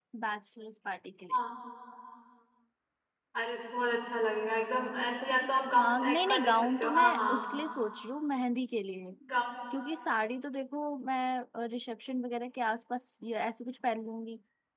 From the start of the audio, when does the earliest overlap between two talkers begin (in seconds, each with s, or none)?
5.8 s